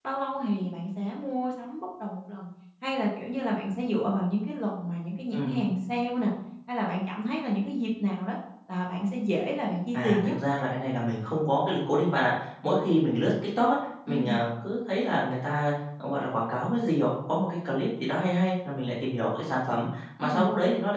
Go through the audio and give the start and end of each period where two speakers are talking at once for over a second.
none

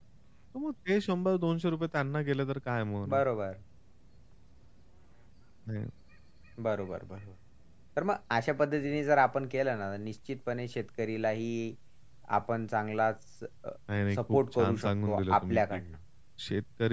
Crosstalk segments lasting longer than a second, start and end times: 14.2-15.8

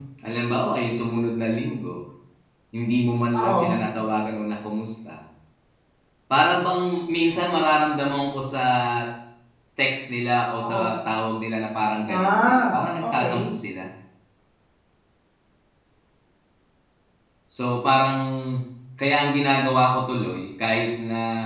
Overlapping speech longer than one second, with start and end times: 12.1-13.5

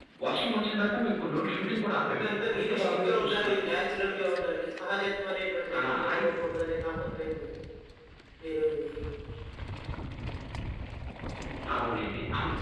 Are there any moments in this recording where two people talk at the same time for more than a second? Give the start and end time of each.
2.1-3.7

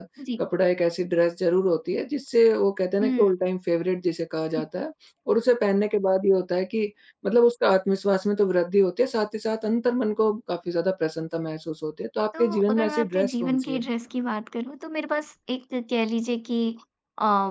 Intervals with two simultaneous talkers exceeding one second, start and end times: 12.4-13.8

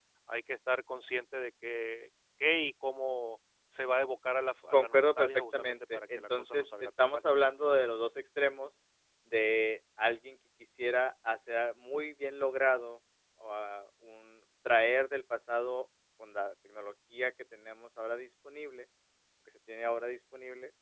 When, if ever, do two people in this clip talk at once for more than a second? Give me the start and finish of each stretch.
4.7-7.2

